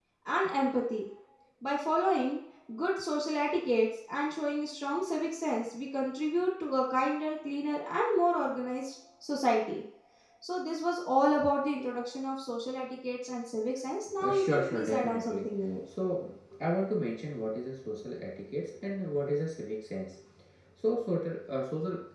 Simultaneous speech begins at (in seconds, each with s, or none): 14.1 s